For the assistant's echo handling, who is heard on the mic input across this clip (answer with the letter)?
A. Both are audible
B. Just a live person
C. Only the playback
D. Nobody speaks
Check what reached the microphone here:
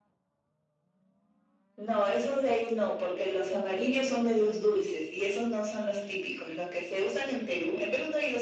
C